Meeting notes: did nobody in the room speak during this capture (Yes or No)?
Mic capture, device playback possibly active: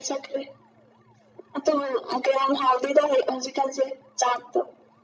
Yes